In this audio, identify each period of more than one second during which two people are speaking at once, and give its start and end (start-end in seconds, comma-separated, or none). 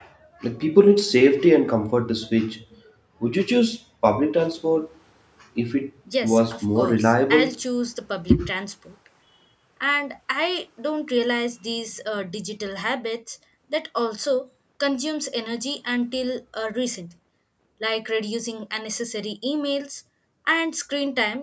6.2-7.5